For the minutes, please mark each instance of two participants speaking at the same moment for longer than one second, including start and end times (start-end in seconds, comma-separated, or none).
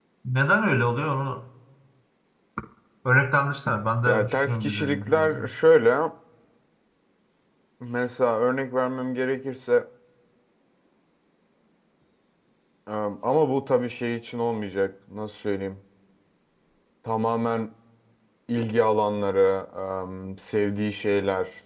4.1-5.5